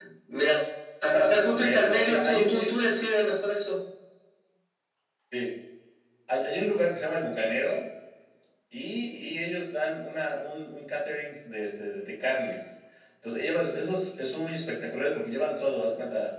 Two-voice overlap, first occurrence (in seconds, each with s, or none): 1.5 s